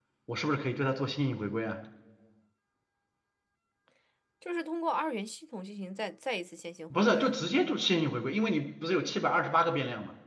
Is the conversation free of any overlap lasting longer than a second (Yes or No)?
Yes